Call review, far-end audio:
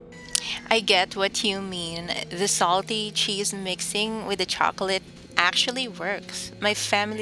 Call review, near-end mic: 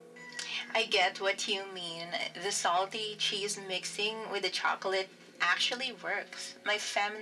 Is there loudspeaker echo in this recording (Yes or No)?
Yes